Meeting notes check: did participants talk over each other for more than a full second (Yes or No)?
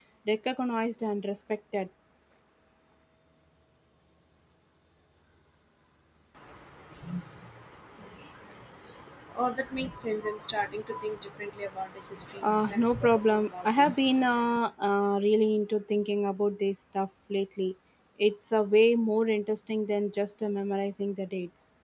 Yes